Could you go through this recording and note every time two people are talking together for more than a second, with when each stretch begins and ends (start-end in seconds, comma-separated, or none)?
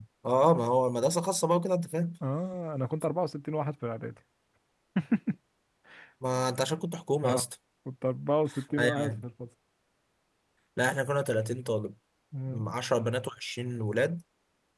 none